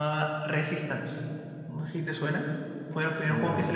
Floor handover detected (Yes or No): No